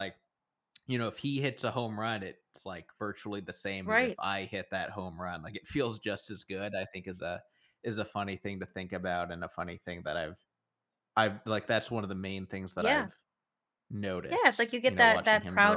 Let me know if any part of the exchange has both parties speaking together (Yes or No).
Yes